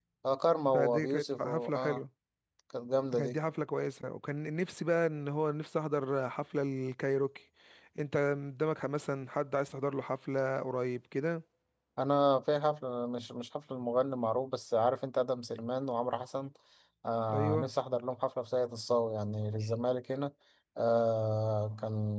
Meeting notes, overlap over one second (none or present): present